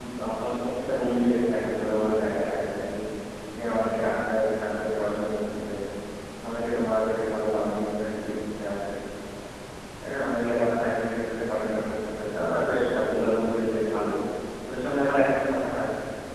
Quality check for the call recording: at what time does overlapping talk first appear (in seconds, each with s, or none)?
none